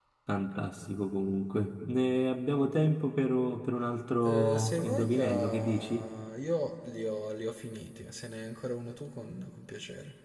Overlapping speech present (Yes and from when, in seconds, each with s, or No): Yes, from 4.2 s